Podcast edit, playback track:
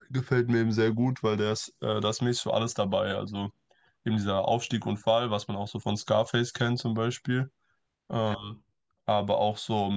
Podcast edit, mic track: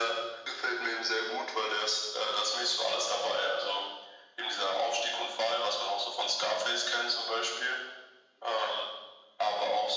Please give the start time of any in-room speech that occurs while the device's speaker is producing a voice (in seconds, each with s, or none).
none